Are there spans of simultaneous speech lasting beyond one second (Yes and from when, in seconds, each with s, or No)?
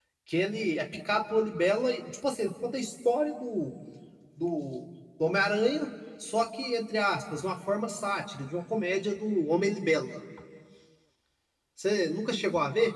No